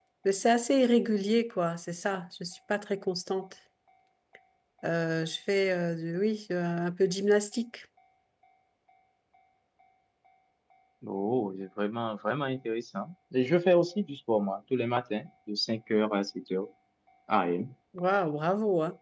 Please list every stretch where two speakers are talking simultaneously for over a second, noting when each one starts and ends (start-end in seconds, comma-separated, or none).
none